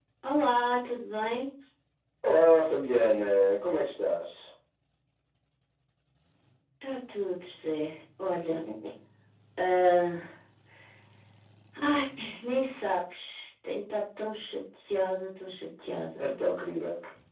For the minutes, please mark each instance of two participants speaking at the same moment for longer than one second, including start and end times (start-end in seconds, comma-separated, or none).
none